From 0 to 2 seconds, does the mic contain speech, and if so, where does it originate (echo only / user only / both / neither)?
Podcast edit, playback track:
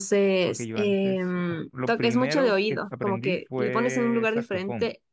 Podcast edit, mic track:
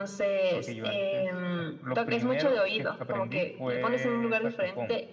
echo only